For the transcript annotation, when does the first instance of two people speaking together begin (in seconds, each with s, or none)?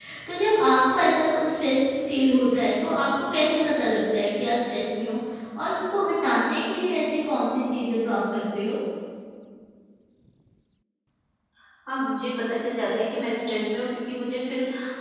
none